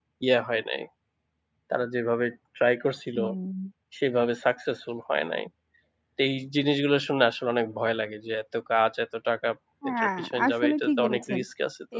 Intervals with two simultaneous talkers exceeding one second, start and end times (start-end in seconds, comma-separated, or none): 9.9-11.4